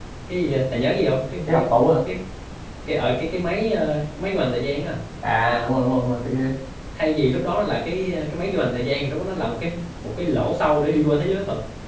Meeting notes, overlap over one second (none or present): none